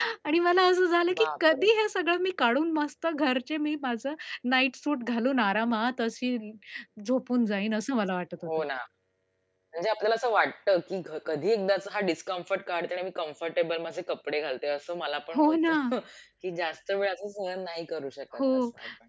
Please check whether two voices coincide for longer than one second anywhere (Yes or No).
No